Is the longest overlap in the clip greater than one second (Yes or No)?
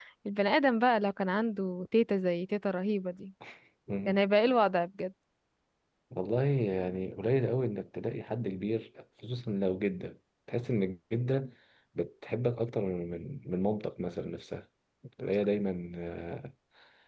No